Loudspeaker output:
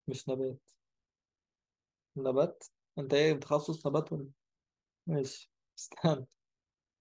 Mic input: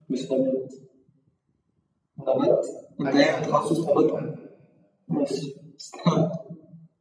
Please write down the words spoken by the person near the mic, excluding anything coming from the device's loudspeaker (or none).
حاجه سهله برضه يعني